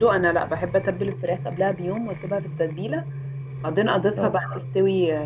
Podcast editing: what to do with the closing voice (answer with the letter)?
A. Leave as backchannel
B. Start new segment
A